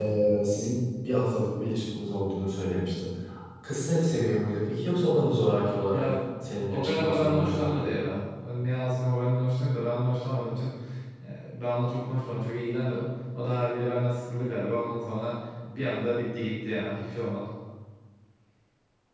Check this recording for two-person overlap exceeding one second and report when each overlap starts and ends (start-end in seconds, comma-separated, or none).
6.7-7.9